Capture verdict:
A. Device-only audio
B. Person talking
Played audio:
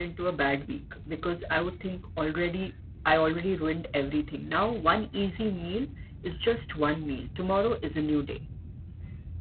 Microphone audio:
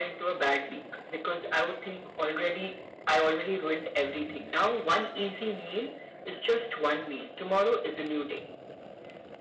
A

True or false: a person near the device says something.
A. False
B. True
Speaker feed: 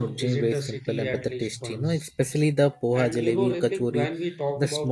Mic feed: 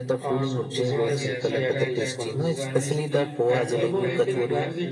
B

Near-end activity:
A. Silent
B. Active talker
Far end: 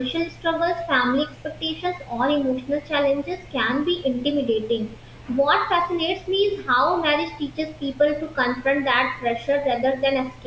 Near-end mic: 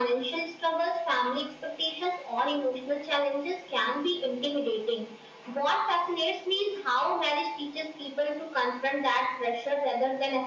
A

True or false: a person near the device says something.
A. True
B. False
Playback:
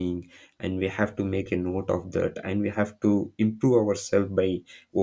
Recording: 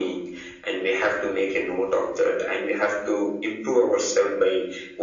B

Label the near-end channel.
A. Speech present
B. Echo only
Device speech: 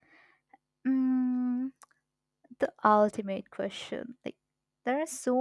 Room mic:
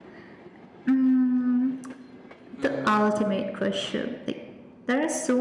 A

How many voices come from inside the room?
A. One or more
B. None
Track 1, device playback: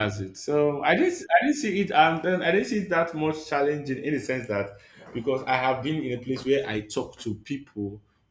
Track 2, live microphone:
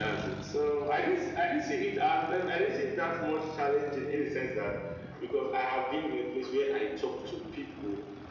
B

